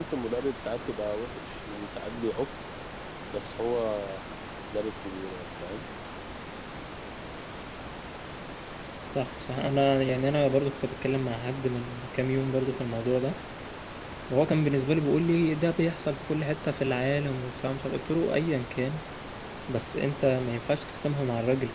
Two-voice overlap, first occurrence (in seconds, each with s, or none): none